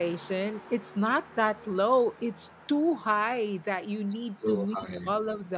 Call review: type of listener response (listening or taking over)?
listening